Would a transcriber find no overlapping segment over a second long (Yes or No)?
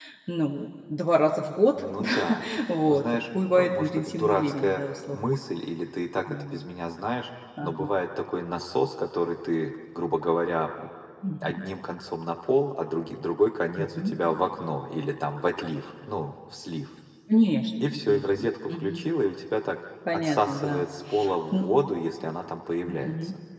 No